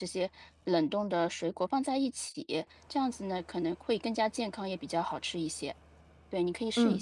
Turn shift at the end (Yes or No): Yes